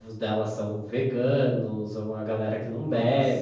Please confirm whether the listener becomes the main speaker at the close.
No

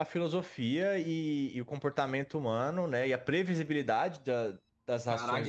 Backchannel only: No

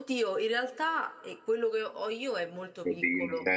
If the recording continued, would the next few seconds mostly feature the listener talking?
Yes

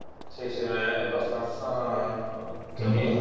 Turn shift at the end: No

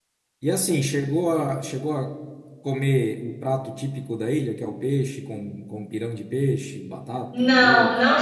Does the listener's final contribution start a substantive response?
Yes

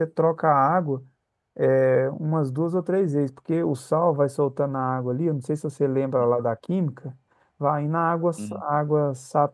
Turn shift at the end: No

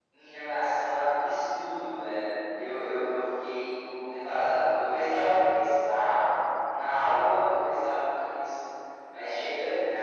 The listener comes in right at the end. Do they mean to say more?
No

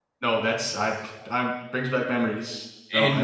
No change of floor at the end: No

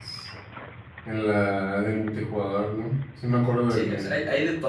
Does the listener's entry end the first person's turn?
Yes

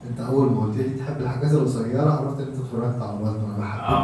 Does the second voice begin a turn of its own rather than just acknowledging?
Yes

